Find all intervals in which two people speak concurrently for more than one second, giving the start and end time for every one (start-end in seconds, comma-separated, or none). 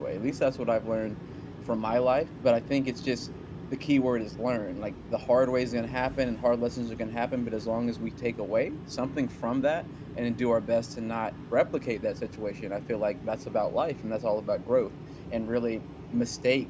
none